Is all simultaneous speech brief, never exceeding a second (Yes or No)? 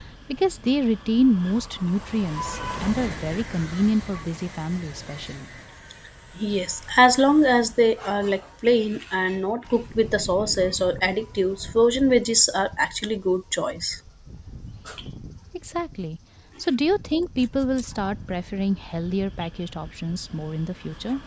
Yes